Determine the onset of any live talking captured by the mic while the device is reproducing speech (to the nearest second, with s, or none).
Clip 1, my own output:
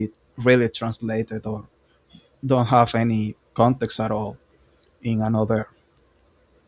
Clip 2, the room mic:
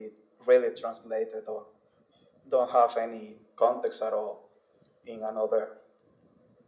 none